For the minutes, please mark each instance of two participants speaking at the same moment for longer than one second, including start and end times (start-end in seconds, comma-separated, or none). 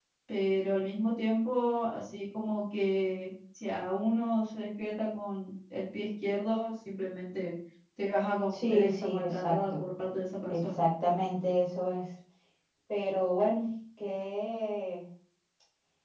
8.5-9.8